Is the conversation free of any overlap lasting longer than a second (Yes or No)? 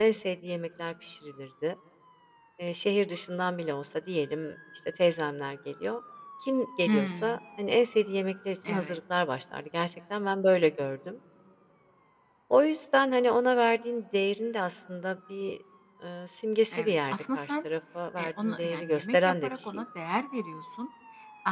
No